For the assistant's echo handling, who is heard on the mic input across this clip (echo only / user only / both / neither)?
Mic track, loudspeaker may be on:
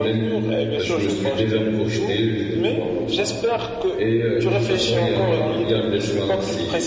both